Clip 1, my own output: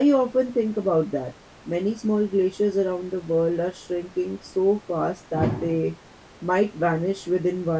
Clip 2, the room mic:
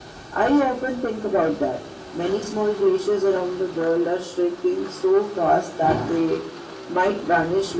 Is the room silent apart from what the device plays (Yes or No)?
Yes